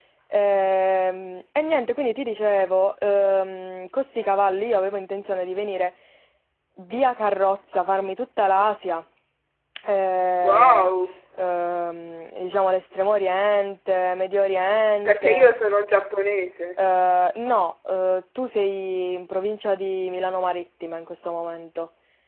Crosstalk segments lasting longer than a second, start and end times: none

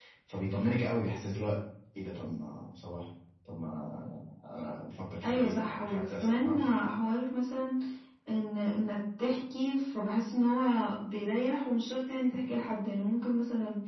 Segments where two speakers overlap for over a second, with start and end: 5.2-6.6

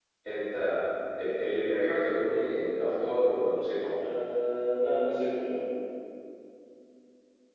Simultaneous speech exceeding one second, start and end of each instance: none

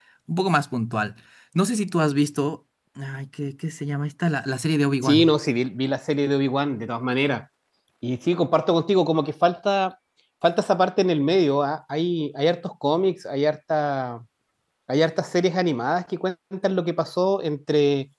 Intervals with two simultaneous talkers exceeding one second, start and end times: none

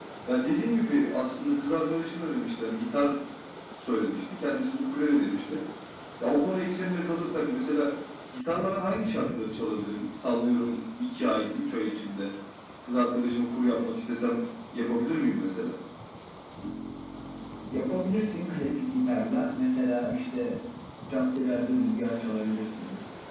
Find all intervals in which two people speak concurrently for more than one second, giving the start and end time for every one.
none

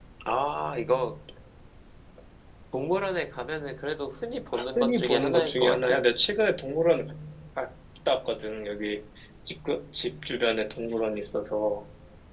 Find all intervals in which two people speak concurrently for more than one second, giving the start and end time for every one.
4.8-6.0

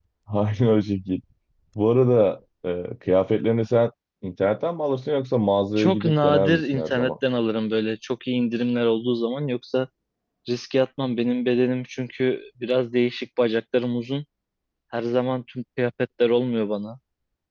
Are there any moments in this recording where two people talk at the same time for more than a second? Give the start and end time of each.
5.8-7.1

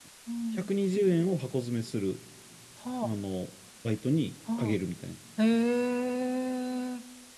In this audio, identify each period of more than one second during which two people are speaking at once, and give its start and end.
none

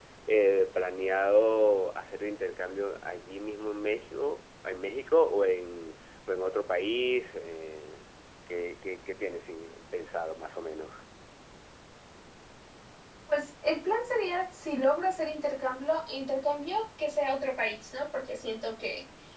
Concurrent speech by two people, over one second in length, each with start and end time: none

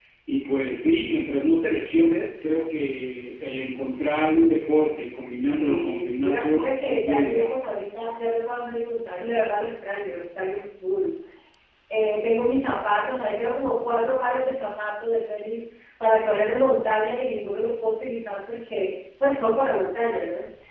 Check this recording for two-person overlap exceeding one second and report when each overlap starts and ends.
5.6-7.5

